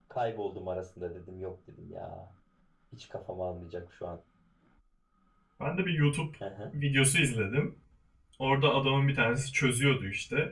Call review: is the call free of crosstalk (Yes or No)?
Yes